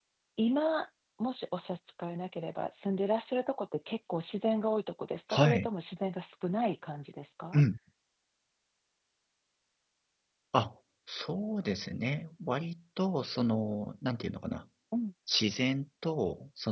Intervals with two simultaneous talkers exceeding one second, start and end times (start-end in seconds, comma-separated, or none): none